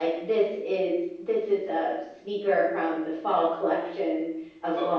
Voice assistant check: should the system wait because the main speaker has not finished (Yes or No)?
No